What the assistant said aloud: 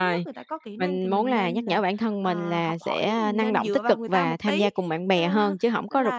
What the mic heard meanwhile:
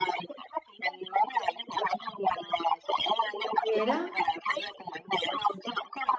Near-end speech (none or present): present